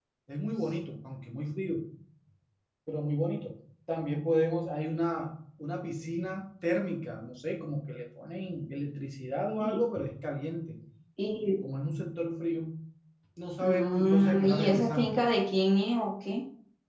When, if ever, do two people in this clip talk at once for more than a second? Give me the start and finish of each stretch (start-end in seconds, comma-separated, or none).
13.6-15.1